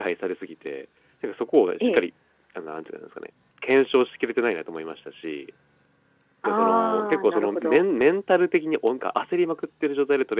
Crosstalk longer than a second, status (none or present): present